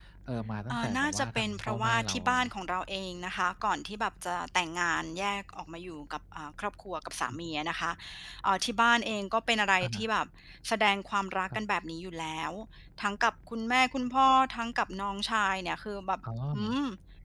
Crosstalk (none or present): present